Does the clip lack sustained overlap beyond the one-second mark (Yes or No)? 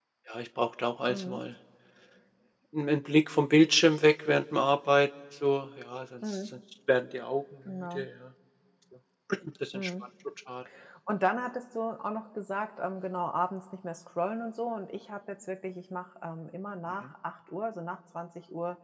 Yes